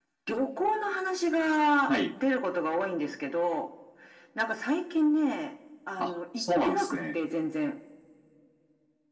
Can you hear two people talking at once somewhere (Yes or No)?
Yes